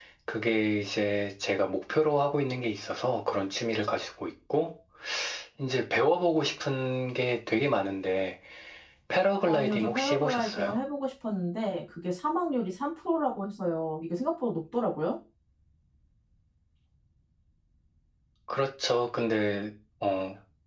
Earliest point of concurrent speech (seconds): 9.5 s

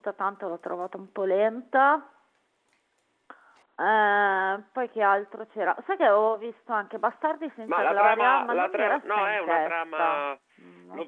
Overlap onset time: 7.7 s

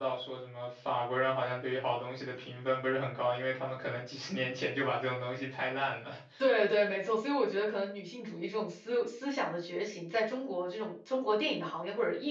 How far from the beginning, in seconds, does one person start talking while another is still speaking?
none

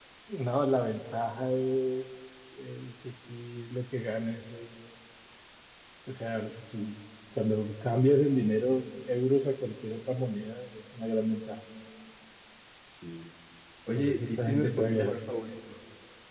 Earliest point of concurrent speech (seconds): 13.9 s

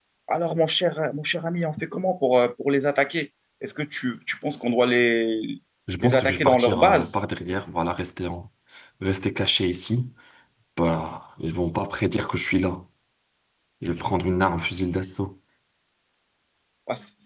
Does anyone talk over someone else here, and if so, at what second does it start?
6.0 s

